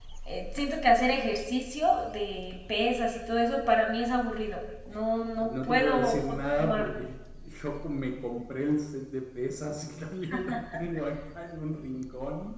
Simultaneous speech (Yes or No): Yes